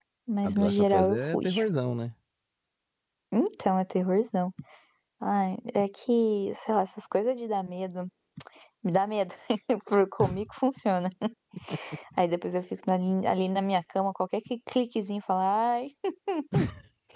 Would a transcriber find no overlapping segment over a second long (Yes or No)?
No